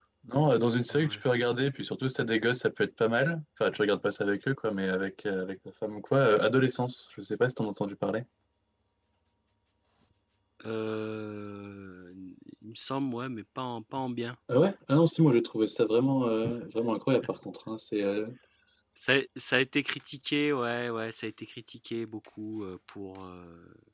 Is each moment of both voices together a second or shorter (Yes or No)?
Yes